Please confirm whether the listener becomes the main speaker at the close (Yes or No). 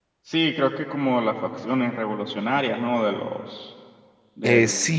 Yes